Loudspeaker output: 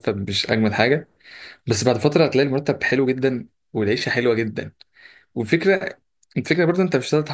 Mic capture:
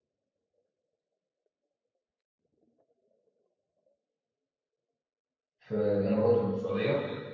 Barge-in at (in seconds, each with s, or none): 5.6 s